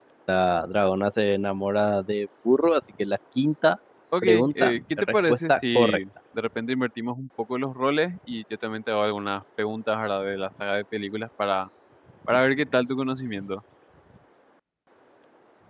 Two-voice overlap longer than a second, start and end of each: 4.2-6.0

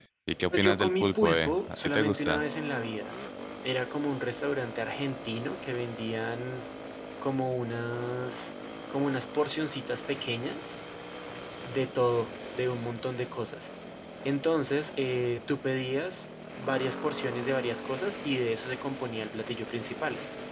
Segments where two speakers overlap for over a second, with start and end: 0.5-2.4

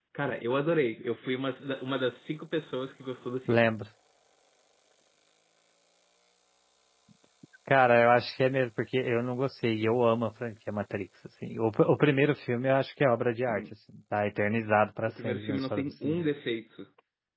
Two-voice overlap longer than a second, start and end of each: 15.1-16.3

